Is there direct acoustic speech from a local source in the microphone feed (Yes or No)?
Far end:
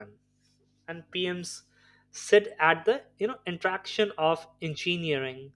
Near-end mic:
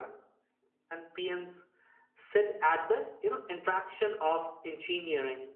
No